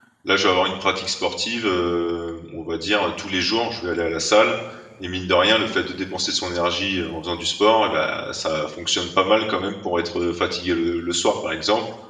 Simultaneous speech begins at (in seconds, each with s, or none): none